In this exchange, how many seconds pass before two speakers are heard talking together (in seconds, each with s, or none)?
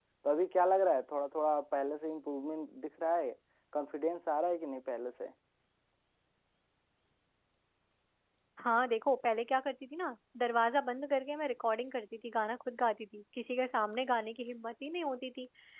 none